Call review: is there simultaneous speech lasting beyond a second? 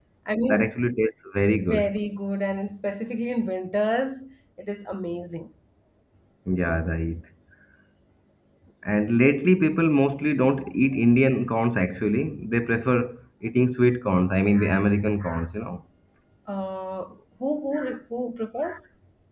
No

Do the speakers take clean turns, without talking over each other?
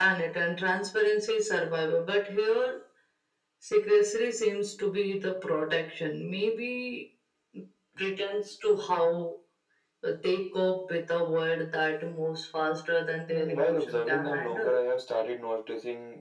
No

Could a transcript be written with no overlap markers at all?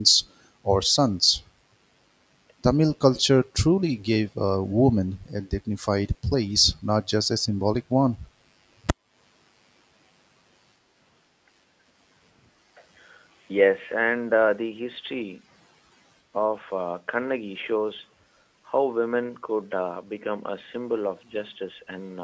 Yes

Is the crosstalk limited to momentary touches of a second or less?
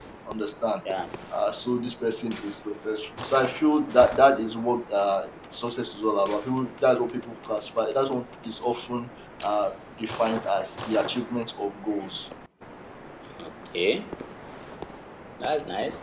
Yes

